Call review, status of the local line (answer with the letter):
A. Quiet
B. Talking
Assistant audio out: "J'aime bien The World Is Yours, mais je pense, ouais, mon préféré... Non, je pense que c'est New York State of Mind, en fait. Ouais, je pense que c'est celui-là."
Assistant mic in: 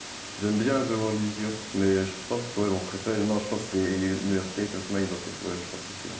A